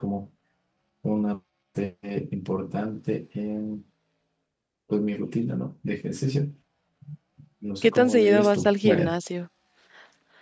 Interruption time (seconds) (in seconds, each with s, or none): 7.8 s